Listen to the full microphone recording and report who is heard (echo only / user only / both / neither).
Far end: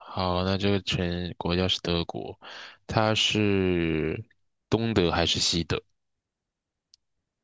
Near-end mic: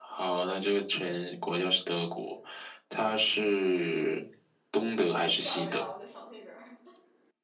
both